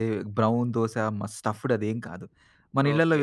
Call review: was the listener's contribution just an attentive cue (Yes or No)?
No